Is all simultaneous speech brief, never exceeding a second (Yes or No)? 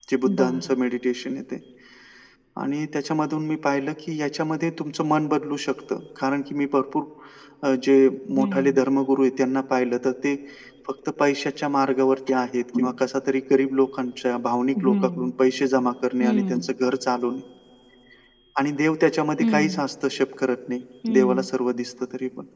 Yes